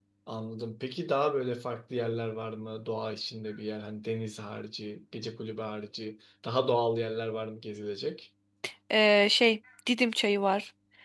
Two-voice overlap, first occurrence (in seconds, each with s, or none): none